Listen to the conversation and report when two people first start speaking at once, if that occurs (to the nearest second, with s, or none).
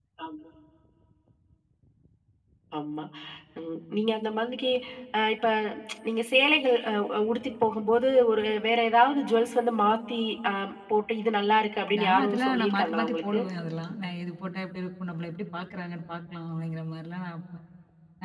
12 s